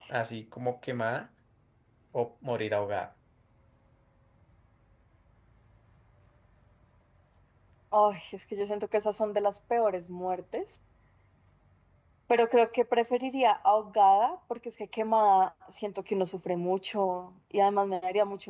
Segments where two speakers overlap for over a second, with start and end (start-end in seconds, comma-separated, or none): none